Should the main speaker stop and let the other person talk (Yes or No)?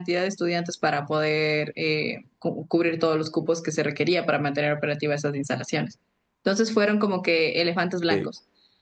No